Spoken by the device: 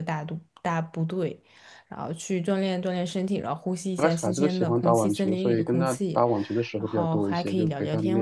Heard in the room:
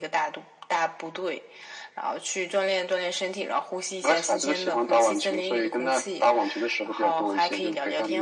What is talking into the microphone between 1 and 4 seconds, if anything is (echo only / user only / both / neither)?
echo only